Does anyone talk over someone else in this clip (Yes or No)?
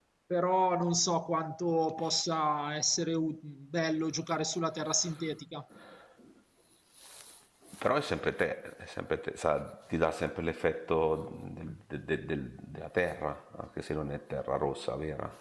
No